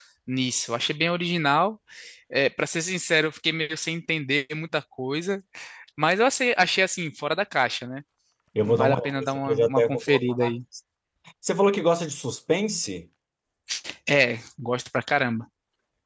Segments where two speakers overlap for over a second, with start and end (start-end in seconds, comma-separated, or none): 8.6-10.5